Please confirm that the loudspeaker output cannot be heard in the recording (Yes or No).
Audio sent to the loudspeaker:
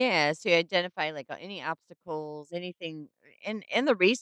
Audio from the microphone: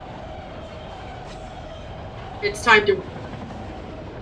Yes